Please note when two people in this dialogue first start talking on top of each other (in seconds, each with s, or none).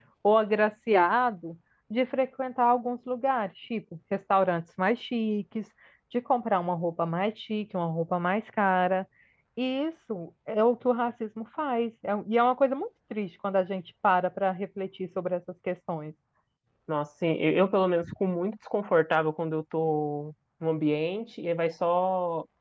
none